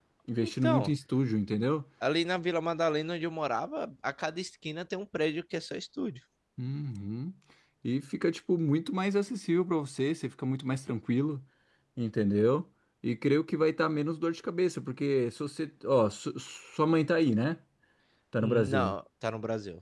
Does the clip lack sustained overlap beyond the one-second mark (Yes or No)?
Yes